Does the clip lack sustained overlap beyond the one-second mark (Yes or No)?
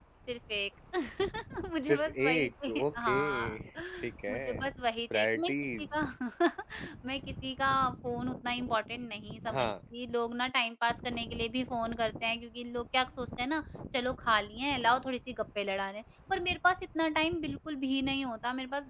No